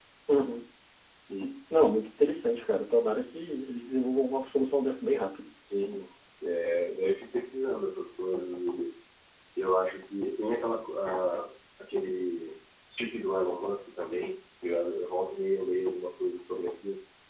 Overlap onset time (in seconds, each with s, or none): none